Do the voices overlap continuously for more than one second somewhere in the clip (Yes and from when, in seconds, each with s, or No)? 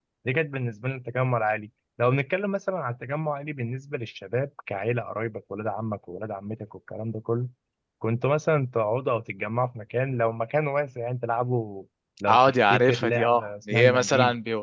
Yes, from 12.3 s